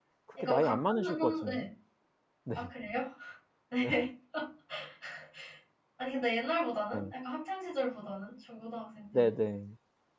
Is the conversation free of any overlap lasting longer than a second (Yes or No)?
No